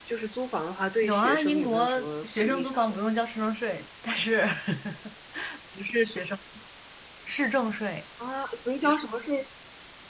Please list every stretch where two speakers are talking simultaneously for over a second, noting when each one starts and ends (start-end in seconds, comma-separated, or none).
1.0-3.0